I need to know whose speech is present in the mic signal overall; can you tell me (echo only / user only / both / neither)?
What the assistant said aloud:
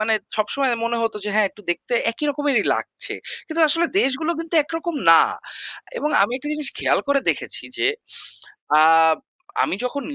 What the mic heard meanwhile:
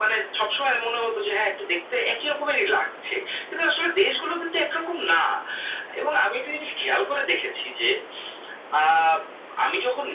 echo only